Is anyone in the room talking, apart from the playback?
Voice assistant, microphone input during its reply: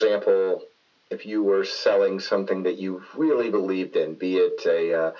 No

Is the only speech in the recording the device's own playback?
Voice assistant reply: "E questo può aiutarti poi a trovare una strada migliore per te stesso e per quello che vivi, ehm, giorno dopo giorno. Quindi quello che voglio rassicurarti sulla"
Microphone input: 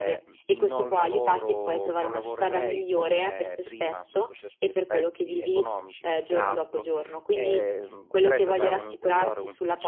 No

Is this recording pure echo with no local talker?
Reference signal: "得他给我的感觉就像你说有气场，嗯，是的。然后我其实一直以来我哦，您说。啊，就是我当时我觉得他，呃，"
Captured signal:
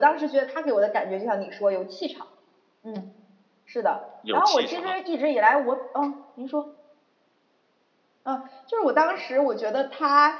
No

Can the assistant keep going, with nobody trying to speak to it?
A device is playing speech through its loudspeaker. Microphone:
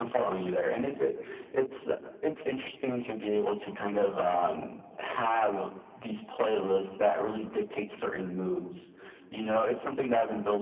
Yes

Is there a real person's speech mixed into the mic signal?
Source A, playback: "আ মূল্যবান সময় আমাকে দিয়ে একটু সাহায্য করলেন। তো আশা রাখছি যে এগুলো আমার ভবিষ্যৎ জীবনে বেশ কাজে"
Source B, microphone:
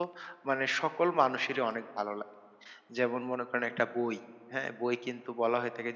Yes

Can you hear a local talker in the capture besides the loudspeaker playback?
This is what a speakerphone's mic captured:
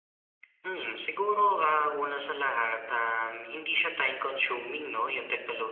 No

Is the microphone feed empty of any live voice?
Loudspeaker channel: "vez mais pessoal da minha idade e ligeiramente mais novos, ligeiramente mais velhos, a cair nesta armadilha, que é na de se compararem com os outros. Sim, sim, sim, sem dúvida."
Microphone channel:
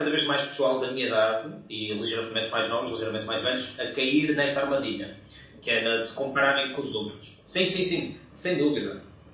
Yes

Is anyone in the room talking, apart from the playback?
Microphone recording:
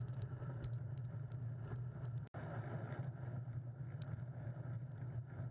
No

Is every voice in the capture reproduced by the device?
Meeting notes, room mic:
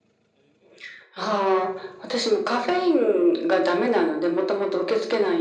Yes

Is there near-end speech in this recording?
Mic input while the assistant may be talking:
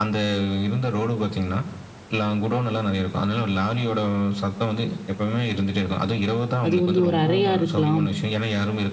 Yes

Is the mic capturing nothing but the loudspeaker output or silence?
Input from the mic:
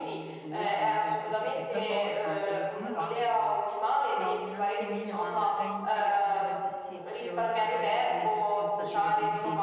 No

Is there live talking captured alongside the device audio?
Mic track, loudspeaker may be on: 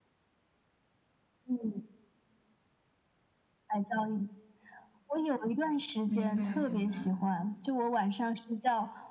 Yes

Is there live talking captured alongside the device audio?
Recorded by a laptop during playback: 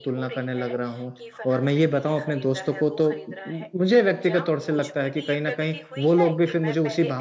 Yes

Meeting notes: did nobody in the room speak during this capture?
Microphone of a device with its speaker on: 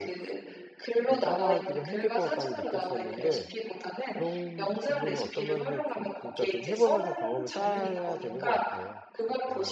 No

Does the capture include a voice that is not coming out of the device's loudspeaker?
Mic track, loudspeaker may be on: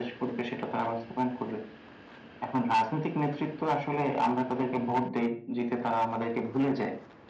No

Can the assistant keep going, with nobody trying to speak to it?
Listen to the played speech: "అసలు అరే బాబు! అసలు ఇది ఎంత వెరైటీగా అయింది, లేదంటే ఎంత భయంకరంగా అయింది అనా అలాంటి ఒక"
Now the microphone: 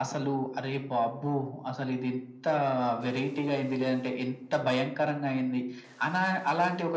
Yes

